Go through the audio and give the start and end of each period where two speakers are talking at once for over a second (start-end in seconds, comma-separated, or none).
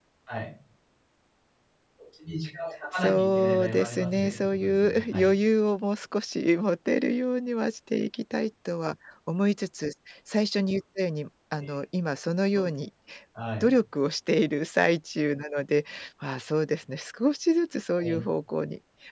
3.0-5.3